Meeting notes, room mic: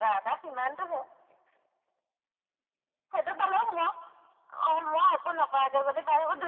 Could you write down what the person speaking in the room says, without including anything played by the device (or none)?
none